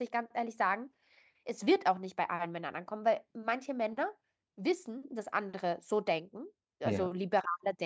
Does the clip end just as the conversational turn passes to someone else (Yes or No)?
No